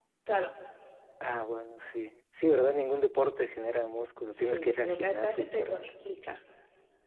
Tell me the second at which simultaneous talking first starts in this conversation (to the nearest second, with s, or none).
4 s